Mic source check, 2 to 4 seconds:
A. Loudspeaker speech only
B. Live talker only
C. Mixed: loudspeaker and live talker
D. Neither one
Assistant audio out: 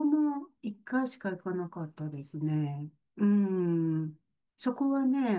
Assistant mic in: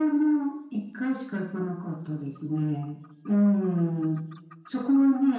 A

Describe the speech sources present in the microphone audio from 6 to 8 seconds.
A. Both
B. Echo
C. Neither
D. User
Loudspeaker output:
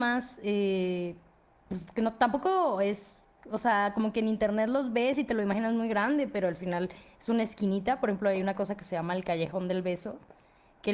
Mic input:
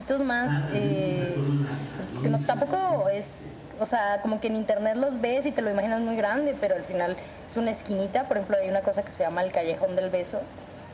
B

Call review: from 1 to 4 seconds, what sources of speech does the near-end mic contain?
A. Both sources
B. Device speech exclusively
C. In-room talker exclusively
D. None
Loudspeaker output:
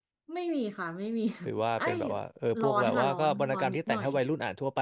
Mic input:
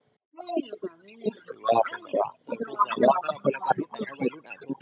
B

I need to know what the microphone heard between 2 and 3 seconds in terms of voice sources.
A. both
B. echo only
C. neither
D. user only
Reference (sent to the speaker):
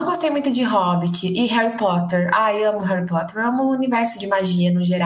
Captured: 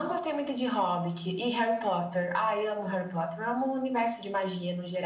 B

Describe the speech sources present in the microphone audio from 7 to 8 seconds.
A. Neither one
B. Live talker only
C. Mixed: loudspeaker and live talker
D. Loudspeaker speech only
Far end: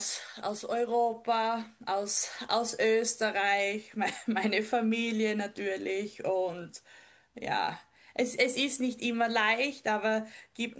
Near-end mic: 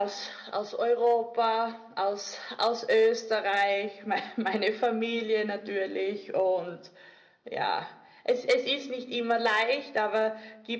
D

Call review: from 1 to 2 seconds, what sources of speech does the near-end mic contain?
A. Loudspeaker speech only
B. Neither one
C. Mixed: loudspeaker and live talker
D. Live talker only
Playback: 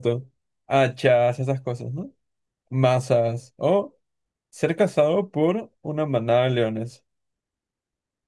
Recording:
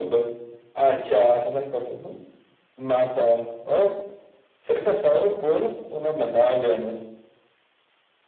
A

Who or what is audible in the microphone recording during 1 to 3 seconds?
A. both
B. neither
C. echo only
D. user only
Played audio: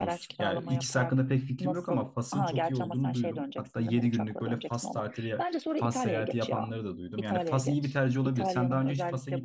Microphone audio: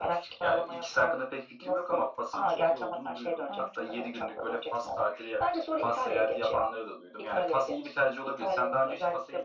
C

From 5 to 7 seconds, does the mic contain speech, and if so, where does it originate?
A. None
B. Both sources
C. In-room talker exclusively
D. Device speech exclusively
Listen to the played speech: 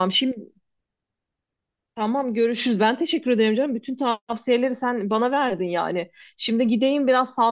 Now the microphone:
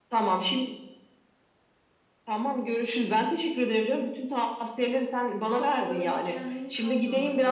B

